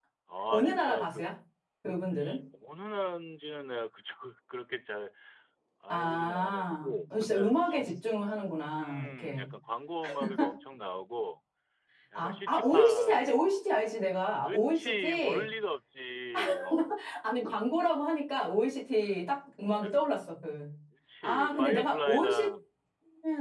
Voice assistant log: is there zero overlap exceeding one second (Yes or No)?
No